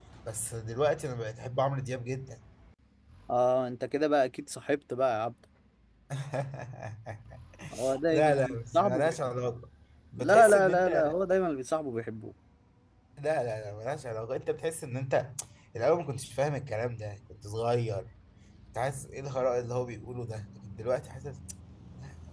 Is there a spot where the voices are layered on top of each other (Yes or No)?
Yes